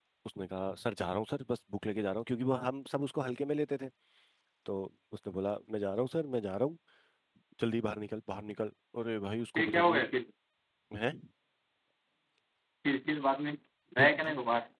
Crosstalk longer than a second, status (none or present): none